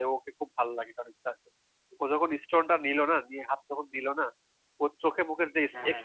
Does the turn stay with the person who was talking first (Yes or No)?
Yes